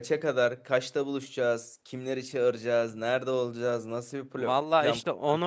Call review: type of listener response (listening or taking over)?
taking over